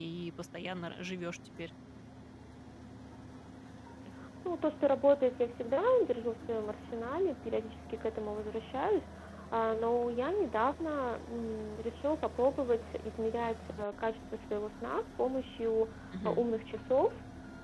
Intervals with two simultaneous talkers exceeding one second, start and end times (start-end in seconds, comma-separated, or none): none